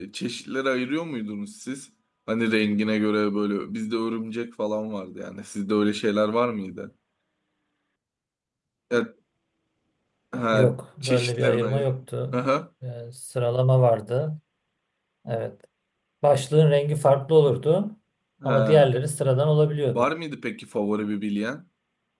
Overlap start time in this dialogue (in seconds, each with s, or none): 10.5 s